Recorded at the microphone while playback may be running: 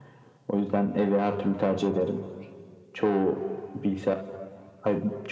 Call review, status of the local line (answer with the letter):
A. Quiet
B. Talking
A